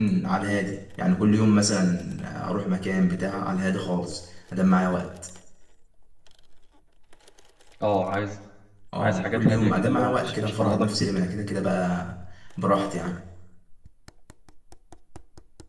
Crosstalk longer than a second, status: present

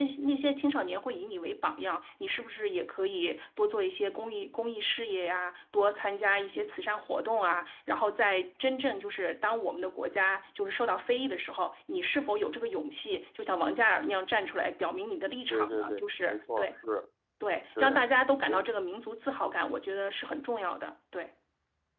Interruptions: present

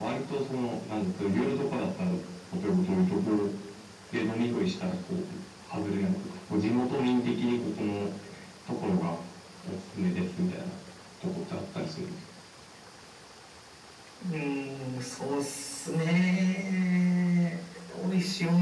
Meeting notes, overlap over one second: none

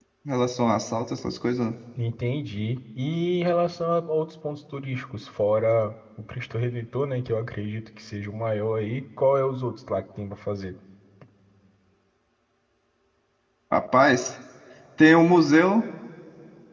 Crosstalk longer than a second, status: none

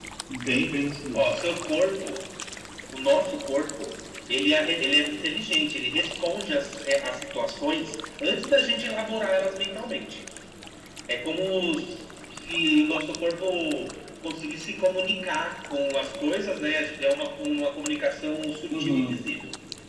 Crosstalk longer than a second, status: none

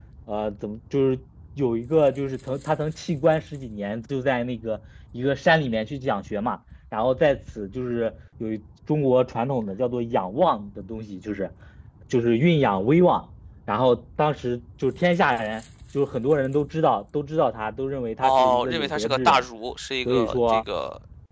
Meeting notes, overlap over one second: present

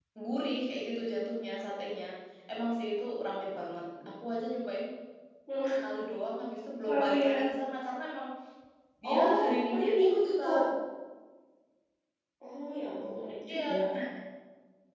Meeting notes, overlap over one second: present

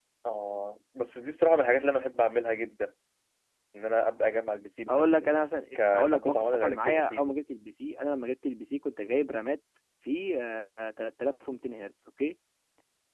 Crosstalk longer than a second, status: present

